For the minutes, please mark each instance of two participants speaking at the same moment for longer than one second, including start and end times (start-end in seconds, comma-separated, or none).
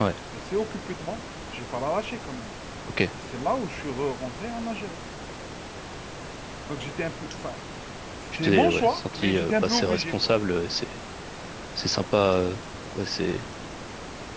8.4-10.2